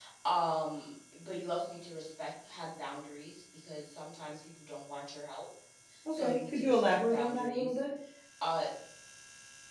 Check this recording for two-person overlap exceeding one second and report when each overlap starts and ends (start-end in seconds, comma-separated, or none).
6.1-7.8